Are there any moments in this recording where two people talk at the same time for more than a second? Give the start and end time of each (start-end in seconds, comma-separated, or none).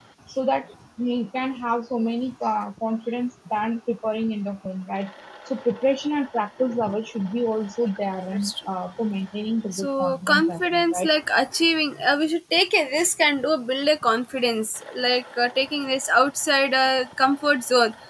9.7-11.1